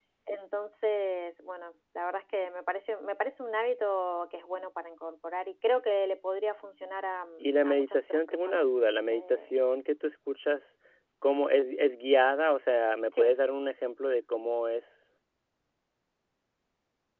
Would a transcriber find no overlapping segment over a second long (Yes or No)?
No